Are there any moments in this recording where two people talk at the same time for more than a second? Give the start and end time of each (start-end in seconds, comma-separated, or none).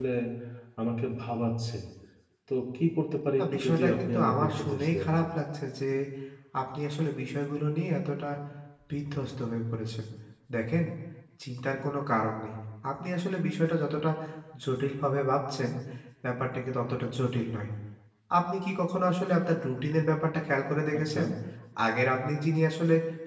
3.4-5.1